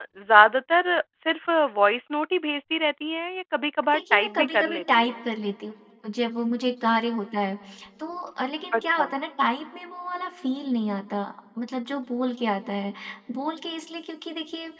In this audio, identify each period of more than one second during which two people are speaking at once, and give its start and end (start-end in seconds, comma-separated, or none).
3.9-5.1